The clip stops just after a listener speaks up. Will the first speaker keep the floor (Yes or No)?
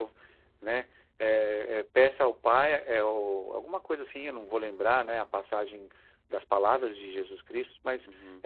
Yes